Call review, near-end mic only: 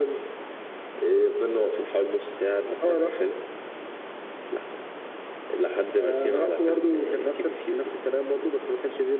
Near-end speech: none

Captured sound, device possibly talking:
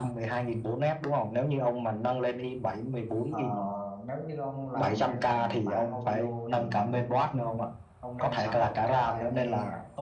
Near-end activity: present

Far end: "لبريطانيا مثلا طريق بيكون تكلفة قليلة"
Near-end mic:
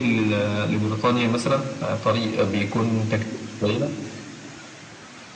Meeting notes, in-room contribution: none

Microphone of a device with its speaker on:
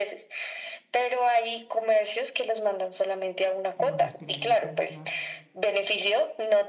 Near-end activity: present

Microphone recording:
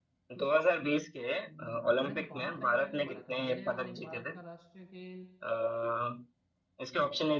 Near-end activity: present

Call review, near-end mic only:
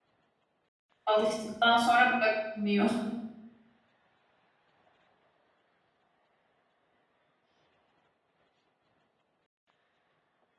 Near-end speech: present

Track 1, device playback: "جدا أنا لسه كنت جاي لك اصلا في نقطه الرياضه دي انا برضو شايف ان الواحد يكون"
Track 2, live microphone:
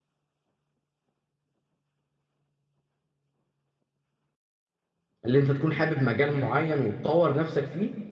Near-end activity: present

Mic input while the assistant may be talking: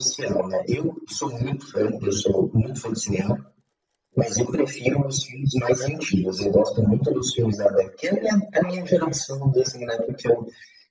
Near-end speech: none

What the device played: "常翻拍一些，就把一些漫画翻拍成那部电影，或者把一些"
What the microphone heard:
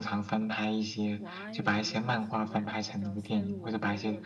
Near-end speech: present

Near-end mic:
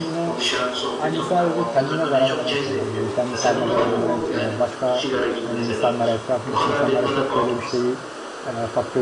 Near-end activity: present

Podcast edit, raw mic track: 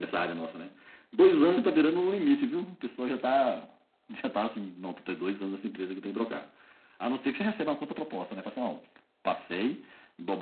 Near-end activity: none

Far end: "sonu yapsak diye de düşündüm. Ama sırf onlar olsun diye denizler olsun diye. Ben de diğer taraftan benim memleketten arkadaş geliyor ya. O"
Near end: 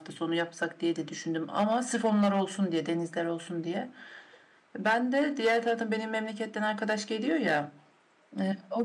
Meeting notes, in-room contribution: none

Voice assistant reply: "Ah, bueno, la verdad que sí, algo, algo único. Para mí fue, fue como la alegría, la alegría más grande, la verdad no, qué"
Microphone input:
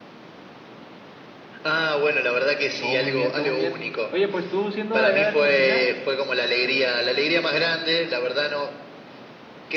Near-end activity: present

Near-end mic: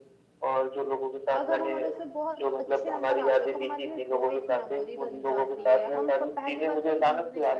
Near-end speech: present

